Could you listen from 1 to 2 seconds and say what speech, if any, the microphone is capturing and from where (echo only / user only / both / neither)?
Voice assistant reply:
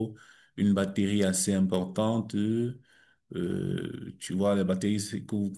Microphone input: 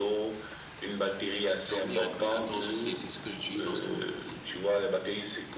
both